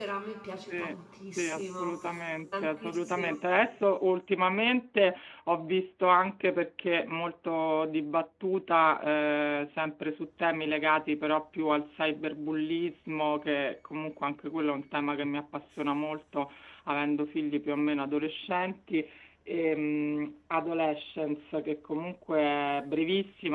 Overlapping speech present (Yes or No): Yes